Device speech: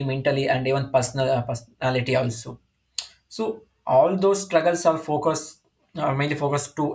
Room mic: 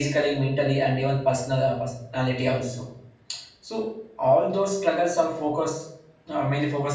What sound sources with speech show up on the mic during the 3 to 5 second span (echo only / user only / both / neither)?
echo only